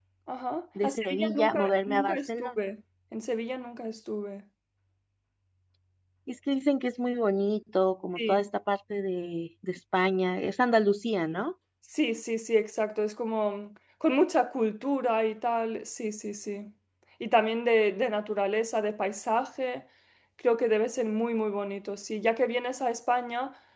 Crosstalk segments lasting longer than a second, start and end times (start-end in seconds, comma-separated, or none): 0.8-2.5